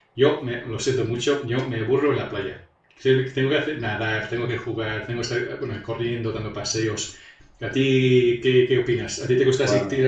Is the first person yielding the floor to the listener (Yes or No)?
No